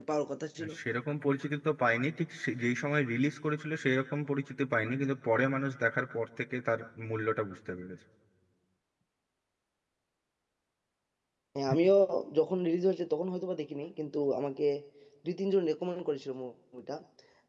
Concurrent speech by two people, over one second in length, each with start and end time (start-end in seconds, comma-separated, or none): none